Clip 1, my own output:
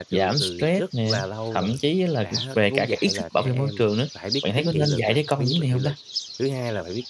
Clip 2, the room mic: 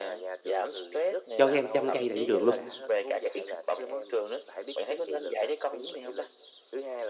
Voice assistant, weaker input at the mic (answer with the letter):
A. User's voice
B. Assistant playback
B